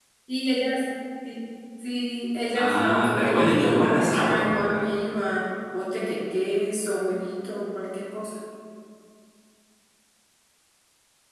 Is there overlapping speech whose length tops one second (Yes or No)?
Yes